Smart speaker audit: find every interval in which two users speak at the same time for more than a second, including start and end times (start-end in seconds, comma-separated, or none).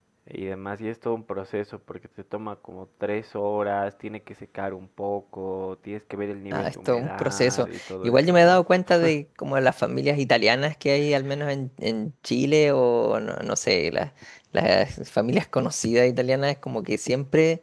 6.5-8.6